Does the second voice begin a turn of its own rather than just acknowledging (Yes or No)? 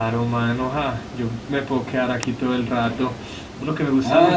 Yes